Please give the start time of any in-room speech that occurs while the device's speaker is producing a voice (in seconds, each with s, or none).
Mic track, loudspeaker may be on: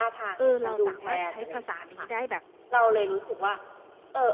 0.4 s